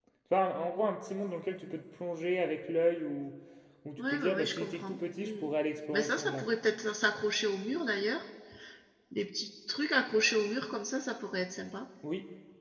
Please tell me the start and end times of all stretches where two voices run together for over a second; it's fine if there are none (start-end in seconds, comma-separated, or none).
4.0-5.4